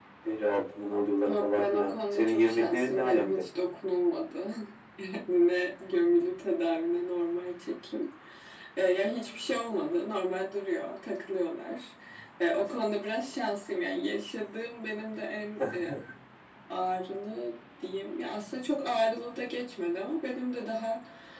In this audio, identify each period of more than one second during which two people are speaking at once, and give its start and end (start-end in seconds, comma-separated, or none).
1.3-3.4